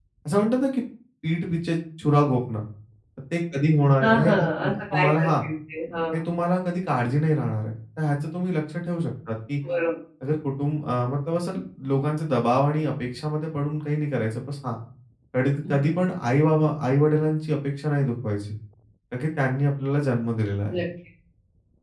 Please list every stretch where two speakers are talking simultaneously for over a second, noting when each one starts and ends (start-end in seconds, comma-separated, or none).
4.0-5.3